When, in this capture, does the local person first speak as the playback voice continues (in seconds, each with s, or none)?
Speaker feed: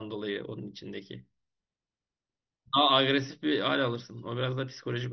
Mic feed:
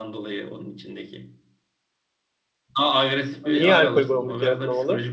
3.5 s